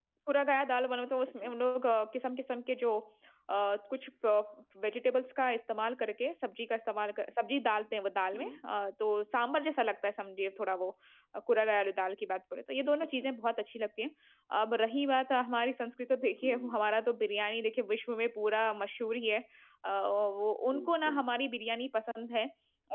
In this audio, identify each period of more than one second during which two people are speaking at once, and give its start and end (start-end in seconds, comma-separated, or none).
none